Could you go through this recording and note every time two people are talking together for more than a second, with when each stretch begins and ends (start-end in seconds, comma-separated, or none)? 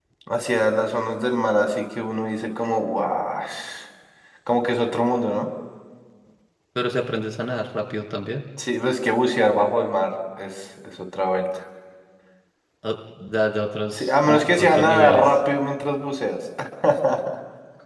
13.9-15.3